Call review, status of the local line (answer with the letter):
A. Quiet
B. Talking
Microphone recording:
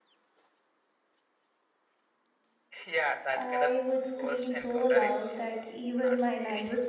B